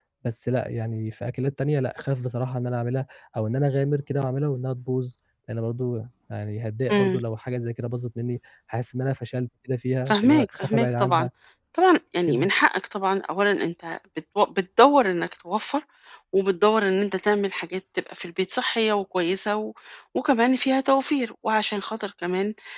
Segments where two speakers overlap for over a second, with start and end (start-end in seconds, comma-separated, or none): 10.1-11.3